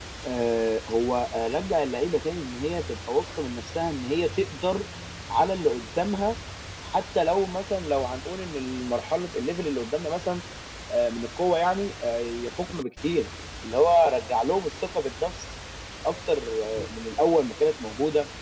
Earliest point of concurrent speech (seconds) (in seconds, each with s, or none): none